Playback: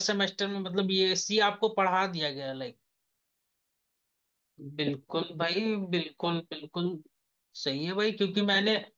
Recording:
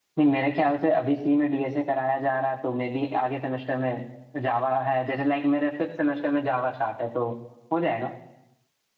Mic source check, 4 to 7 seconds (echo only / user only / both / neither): user only